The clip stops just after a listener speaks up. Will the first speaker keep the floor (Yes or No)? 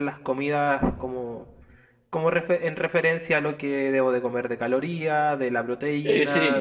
Yes